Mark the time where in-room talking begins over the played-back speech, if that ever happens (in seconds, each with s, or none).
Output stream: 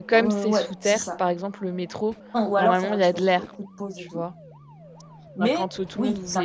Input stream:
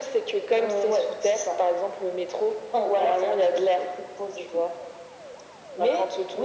none